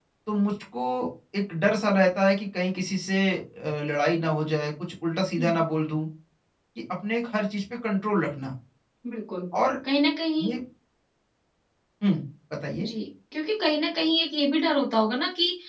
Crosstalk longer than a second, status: none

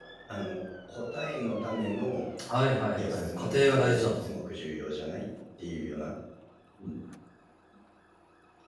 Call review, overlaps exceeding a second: present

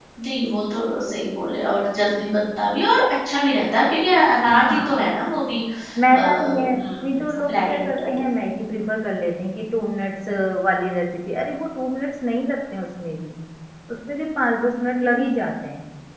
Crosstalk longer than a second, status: present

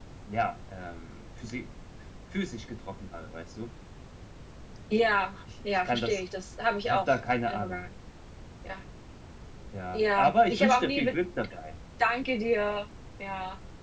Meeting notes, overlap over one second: present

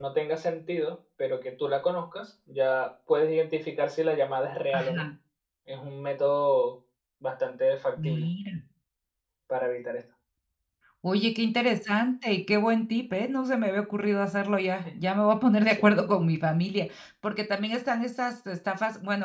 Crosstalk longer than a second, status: none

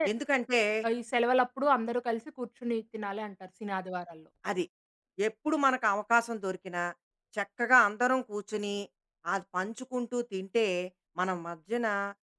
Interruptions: none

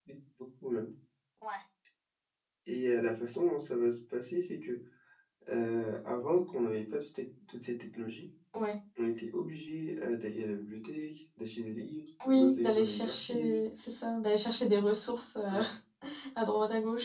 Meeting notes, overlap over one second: present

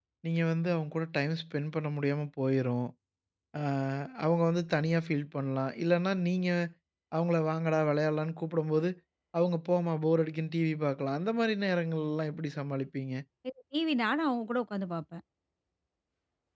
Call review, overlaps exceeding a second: none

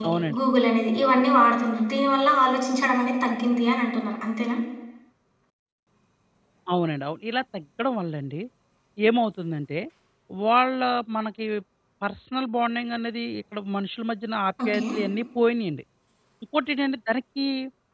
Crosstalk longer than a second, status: none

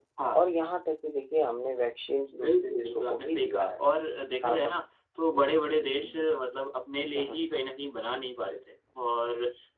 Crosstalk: present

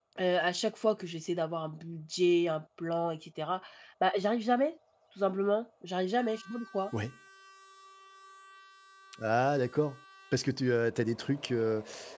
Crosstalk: none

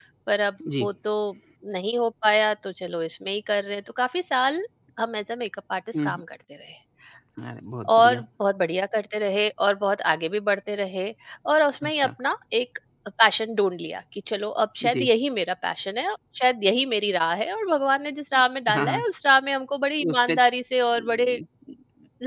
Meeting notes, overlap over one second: none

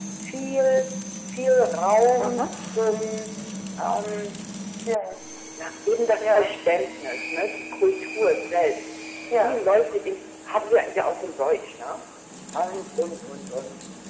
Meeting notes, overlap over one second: none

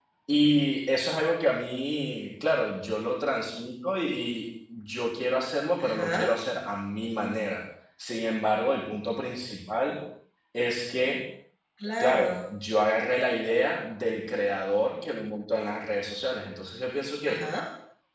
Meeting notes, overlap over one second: none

